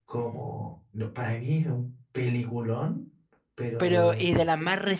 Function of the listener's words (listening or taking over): taking over